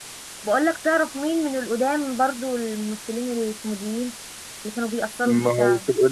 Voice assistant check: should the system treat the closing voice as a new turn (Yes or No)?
Yes